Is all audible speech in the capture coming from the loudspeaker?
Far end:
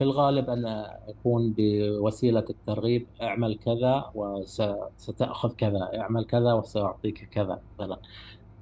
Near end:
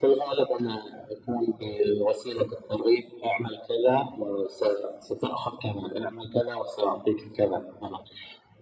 Yes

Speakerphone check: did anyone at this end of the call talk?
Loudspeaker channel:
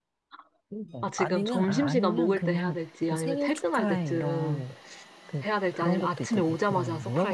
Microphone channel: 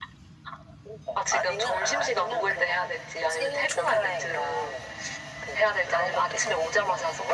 No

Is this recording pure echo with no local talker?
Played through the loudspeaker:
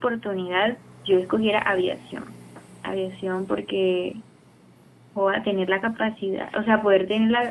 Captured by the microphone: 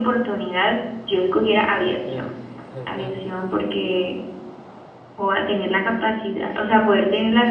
No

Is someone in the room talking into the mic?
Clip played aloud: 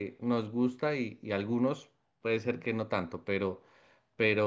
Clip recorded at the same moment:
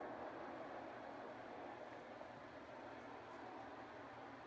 No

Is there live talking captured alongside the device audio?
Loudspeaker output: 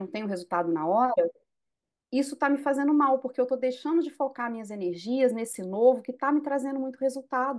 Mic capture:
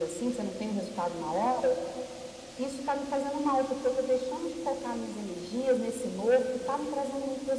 No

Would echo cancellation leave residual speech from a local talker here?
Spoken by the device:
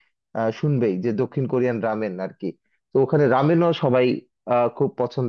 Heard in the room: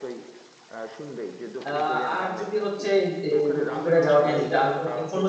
Yes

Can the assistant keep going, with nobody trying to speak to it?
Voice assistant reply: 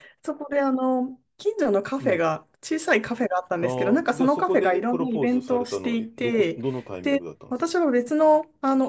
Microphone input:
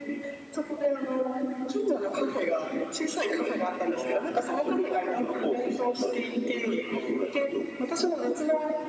Yes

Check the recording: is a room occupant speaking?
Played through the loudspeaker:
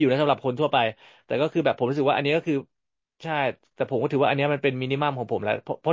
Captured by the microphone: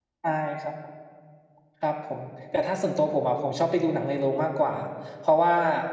Yes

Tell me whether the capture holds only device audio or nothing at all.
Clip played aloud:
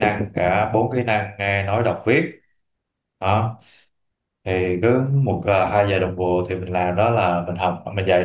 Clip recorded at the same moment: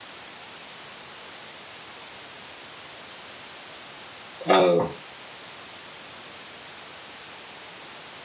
No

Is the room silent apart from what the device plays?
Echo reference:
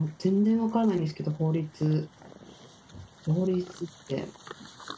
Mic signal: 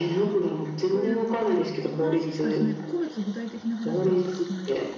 No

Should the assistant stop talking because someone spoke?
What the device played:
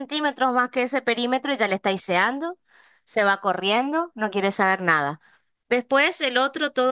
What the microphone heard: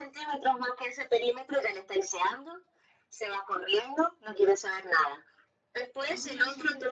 Yes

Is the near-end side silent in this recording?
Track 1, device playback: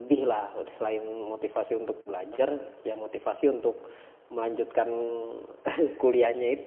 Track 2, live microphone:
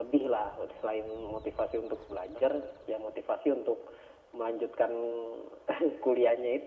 Yes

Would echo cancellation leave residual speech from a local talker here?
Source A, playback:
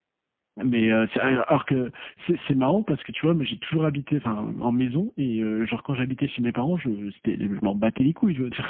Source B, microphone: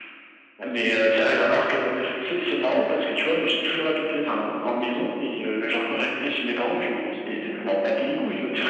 No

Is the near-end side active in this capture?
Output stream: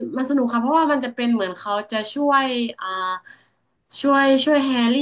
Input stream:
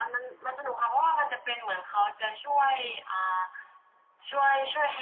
No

